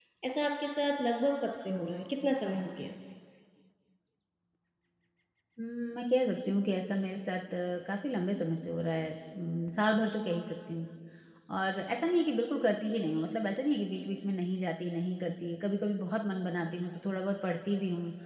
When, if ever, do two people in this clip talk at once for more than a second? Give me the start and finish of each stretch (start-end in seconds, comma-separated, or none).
none